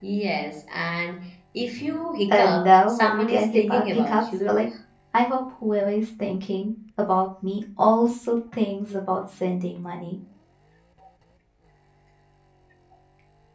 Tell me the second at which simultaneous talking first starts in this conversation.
2 s

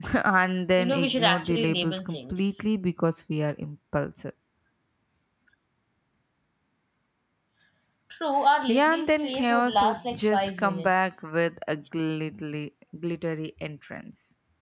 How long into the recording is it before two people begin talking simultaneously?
1 s

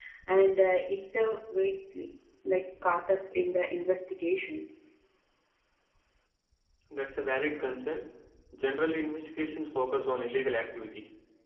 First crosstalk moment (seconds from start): none

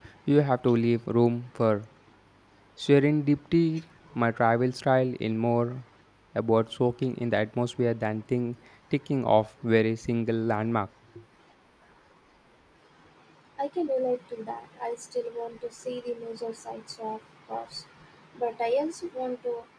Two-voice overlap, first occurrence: none

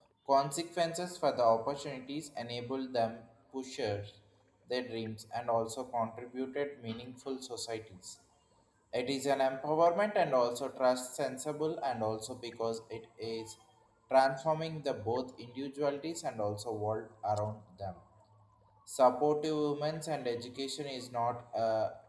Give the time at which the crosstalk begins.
none

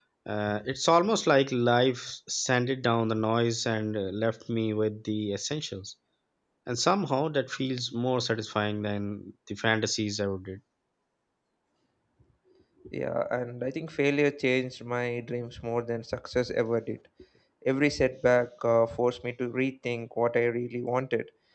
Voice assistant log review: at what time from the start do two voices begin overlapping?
none

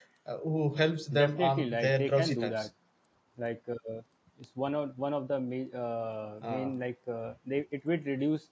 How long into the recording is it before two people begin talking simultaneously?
1 s

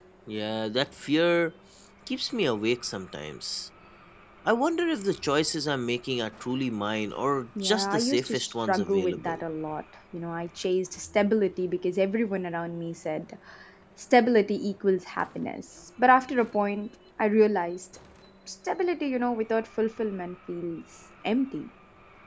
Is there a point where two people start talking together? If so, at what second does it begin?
8 s

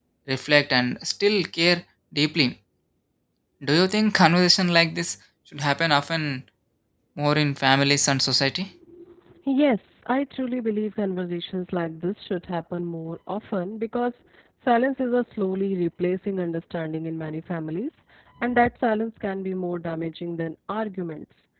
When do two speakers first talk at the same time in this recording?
none

